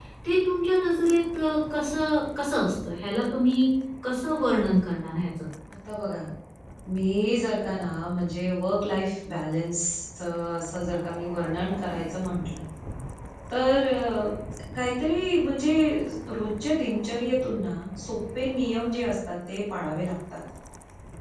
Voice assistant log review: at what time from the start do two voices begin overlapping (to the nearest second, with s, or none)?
none